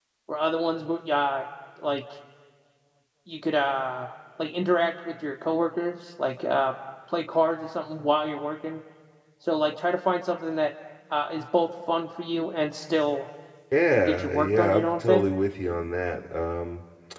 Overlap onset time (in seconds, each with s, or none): 14.0 s